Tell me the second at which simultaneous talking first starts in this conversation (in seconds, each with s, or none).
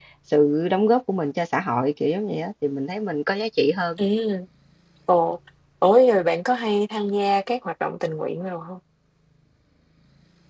none